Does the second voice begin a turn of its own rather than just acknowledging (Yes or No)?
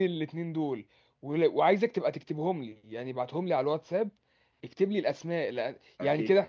No